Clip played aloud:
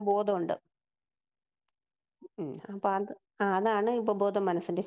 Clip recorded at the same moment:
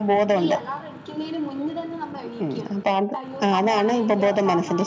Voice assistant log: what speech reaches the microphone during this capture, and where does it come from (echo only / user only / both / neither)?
both